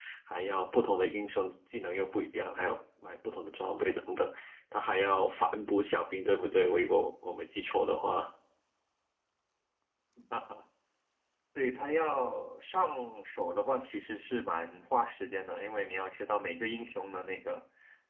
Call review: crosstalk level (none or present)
none